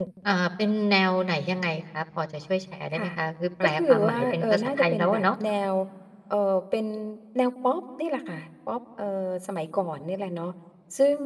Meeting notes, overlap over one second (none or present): present